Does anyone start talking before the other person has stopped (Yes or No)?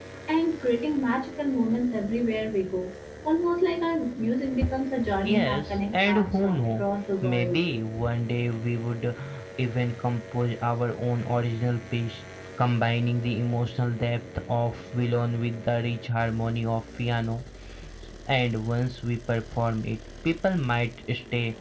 Yes